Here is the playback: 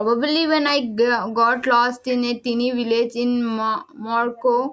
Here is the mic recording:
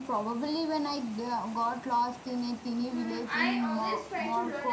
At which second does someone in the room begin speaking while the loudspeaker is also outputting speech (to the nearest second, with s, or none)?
3 s